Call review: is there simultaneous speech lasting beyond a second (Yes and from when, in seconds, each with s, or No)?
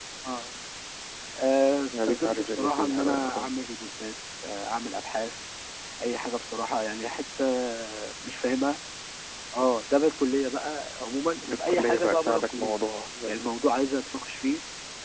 Yes, from 2.1 s